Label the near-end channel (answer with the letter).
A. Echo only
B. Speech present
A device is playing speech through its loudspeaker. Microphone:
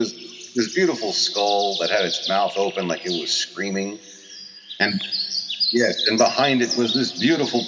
A